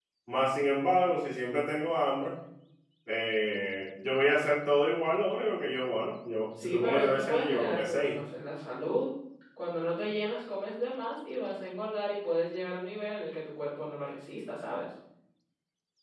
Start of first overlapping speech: 6.6 s

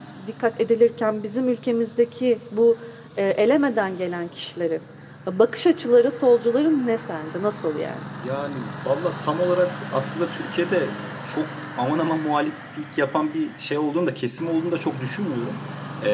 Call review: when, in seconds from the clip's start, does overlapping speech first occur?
none

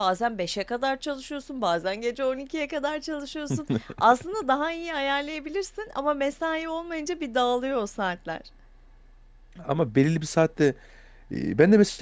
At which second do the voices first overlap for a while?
none

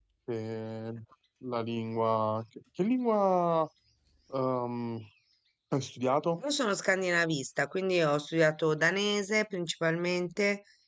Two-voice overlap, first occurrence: none

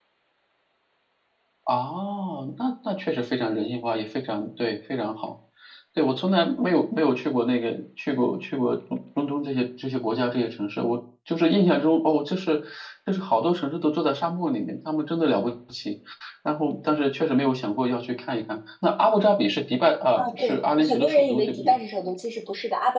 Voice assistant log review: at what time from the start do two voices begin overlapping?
20.1 s

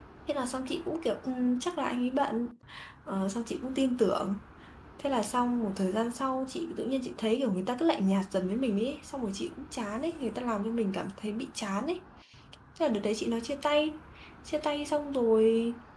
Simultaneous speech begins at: none

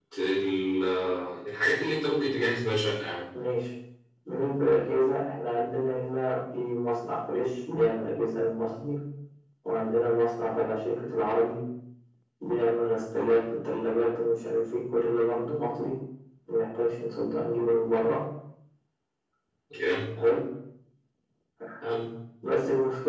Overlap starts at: none

